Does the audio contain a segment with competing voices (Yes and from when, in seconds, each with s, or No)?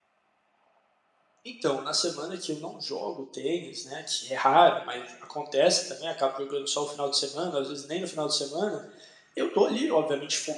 No